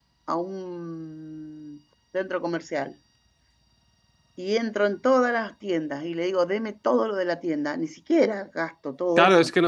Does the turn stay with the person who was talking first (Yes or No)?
No